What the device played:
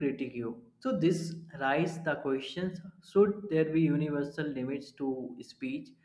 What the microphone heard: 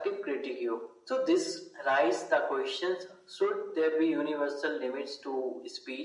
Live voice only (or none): none